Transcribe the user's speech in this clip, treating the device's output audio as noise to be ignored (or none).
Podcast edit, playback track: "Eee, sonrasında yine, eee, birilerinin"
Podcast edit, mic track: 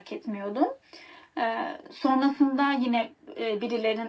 none